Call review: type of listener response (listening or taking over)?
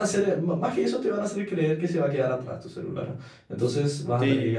taking over